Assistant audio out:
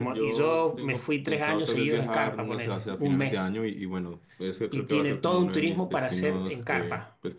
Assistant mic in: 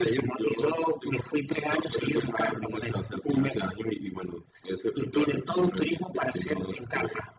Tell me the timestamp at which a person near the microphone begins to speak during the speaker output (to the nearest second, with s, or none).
none